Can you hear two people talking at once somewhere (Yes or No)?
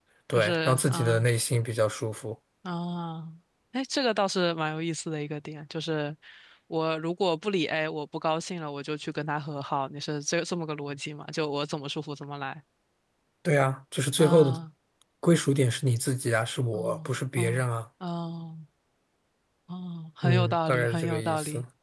Yes